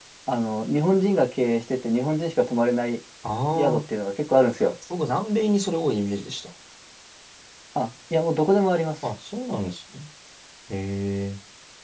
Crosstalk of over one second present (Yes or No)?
No